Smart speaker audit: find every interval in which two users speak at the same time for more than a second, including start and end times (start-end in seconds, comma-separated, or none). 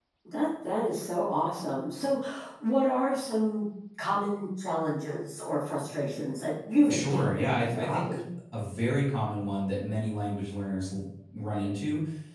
6.9-8.2